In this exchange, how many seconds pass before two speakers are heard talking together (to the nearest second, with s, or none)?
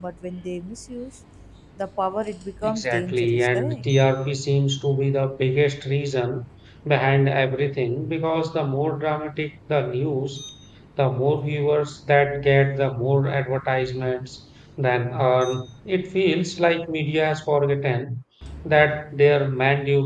3 s